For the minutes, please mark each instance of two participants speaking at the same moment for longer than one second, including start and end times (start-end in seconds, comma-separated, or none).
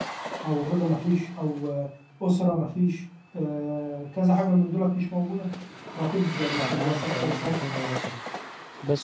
6.6-7.9